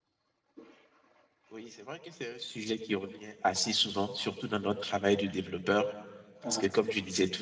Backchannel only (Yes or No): Yes